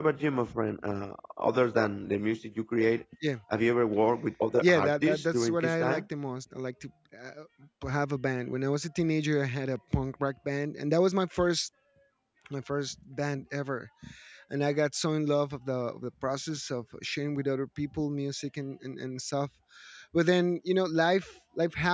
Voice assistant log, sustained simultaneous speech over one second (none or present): present